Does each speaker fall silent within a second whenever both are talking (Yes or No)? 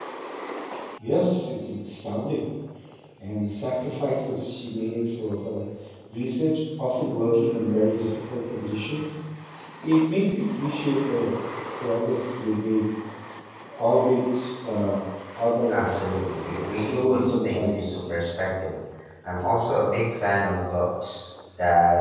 No